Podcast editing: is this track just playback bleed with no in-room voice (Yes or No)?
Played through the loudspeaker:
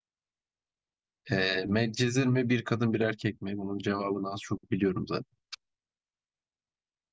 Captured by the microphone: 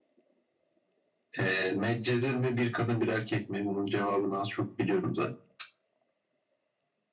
Yes